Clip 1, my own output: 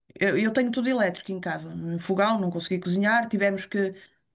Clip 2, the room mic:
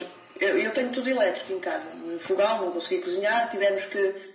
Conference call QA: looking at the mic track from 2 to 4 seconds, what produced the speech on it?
echo only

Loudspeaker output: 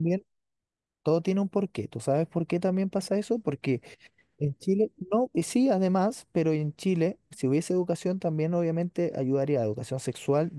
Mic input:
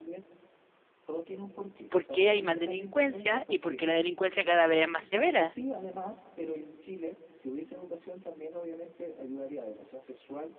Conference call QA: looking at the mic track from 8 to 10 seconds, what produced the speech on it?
echo only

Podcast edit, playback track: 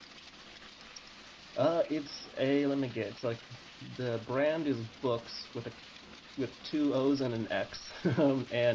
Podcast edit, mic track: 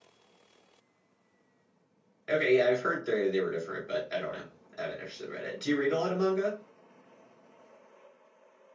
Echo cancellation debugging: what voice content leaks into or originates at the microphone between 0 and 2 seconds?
neither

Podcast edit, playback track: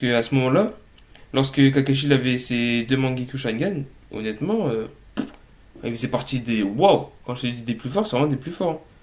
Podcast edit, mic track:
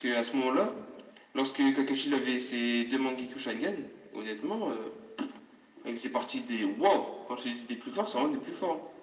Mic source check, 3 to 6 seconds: echo only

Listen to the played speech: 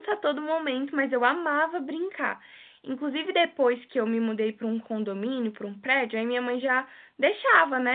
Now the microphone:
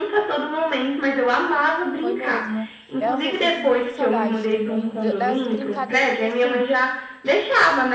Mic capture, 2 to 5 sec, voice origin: both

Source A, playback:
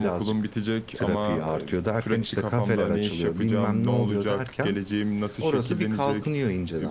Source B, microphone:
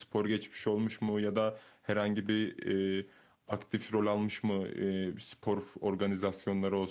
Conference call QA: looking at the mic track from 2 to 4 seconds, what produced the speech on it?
user only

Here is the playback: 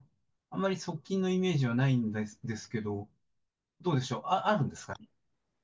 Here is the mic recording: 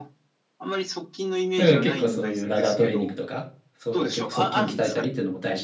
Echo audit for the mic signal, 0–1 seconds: echo only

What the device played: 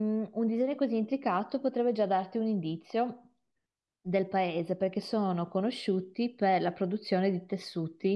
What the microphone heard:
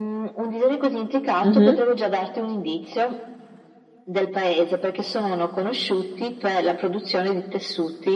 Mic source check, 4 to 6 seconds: echo only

